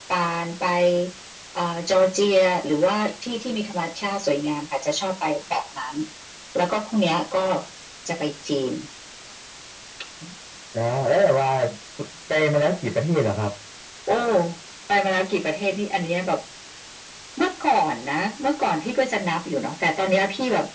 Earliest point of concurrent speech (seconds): none

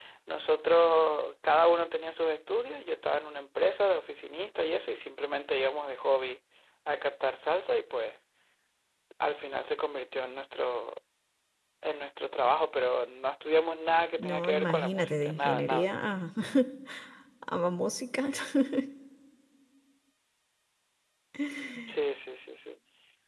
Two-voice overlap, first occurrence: 14 s

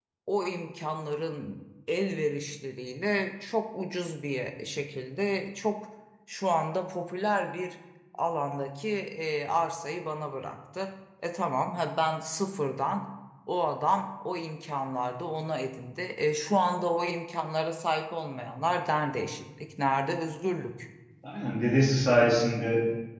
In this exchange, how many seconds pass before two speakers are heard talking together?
none

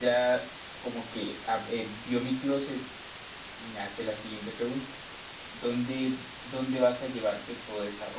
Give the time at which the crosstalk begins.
none

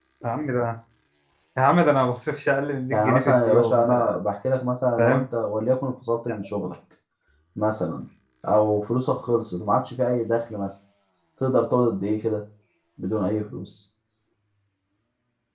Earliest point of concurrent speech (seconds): 3 s

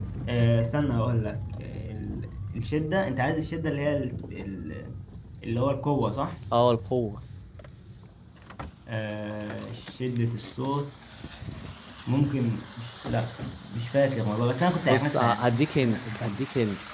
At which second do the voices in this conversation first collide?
15 s

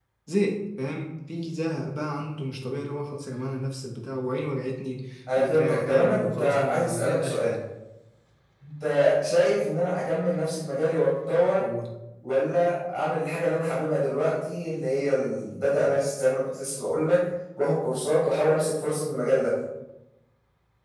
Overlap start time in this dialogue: 5 s

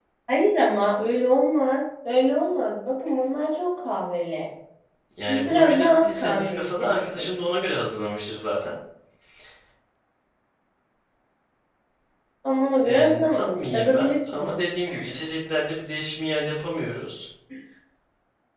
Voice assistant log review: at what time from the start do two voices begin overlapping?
5 s

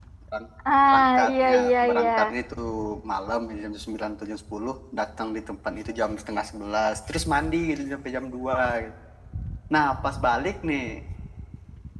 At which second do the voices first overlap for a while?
1 s

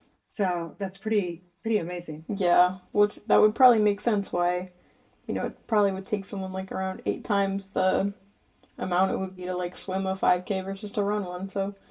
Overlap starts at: none

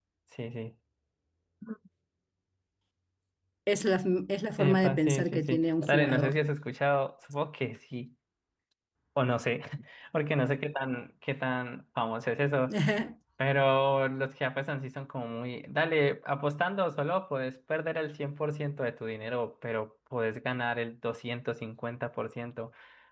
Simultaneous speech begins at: 5 s

